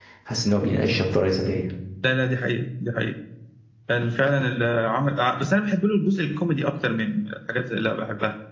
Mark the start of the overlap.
none

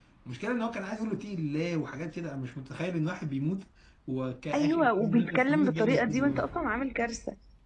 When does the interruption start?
4.5 s

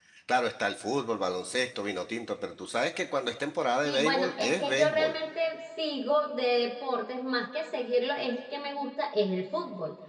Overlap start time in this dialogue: 3.8 s

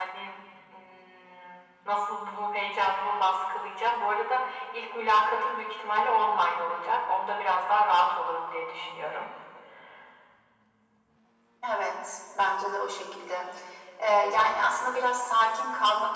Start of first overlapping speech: none

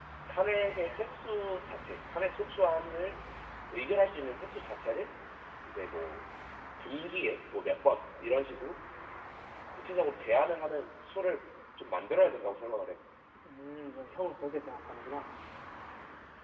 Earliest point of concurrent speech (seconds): none

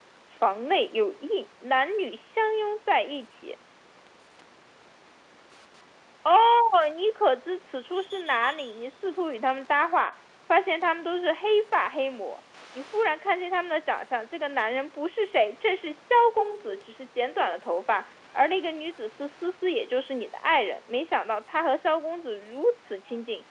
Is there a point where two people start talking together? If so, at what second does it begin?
none

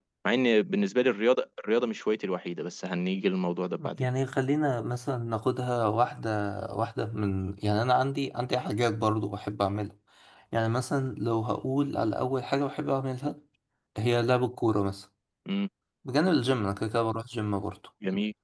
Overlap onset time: none

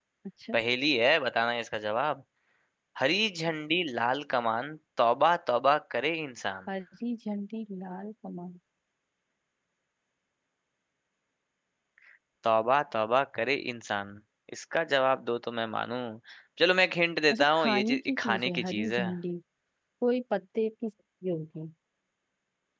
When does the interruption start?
17.3 s

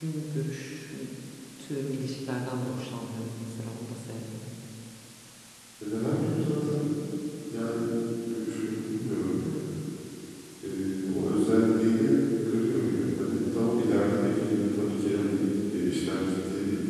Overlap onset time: none

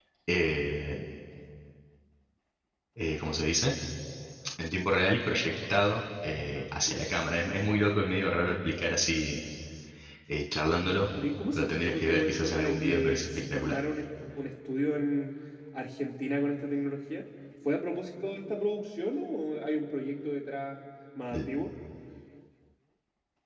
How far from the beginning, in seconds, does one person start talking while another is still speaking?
11.6 s

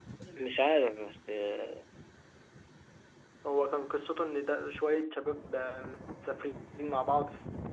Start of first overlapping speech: none

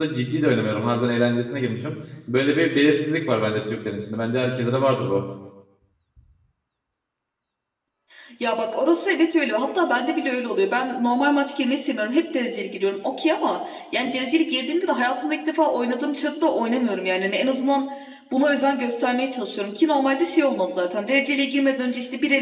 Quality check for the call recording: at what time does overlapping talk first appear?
none

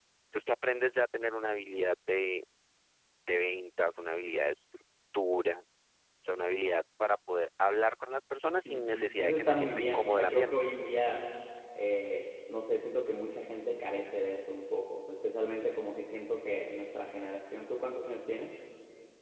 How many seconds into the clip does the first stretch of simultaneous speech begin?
8.6 s

